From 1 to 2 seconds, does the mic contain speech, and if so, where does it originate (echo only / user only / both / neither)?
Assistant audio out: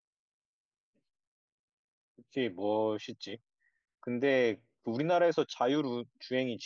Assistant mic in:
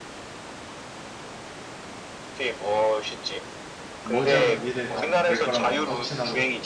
neither